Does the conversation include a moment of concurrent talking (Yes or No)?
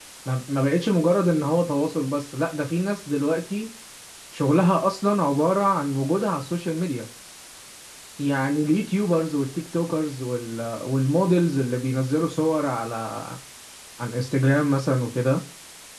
No